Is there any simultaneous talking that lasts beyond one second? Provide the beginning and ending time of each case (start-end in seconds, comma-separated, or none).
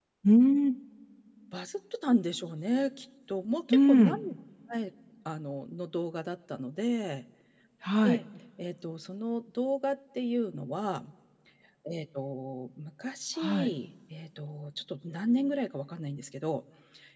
none